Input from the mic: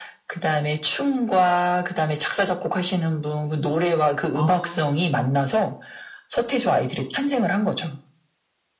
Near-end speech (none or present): present